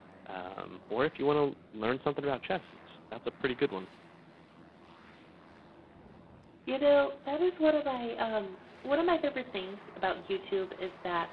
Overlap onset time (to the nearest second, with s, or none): none